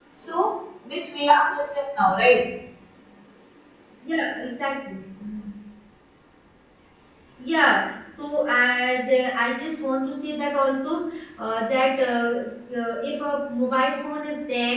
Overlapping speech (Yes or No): No